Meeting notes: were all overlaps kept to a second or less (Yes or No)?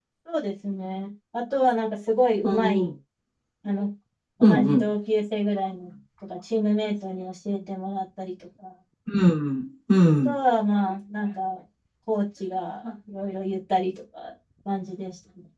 Yes